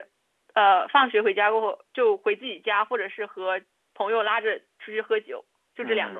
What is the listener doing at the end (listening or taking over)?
taking over